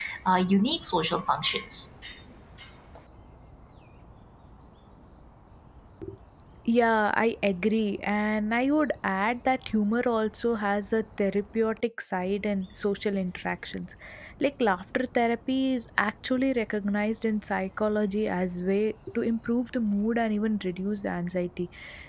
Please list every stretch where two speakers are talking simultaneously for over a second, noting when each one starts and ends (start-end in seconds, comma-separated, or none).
none